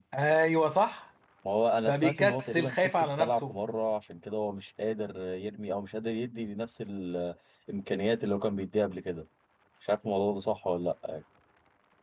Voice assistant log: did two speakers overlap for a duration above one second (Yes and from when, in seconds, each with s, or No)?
Yes, from 1.9 s